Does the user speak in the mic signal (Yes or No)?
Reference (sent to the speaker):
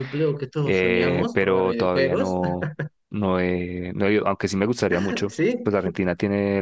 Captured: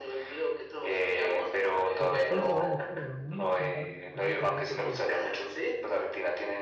Yes